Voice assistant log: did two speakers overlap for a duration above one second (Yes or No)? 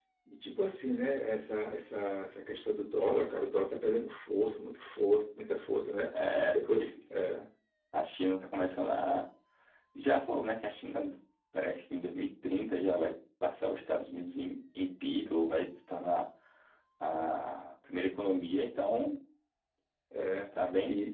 No